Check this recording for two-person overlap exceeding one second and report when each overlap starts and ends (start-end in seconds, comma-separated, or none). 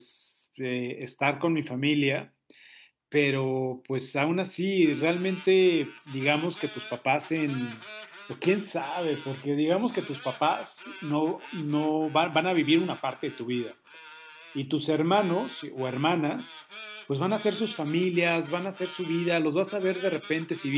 none